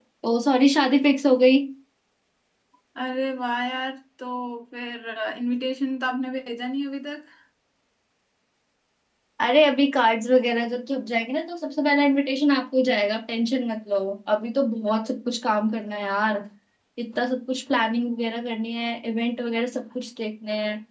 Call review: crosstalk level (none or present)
none